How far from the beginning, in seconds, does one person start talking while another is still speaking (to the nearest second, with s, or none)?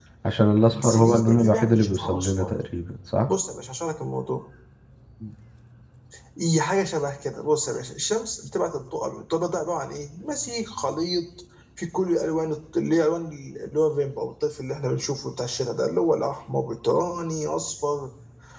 1 s